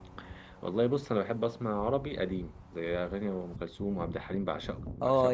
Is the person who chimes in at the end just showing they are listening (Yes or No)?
No